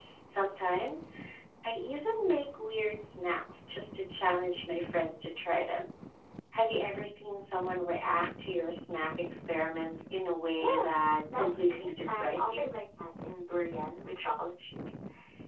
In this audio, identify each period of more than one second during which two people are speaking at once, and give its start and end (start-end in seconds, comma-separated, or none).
11.3-12.7